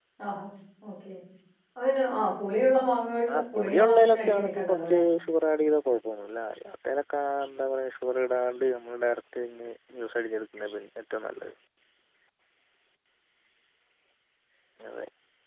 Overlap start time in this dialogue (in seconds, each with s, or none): 3.3 s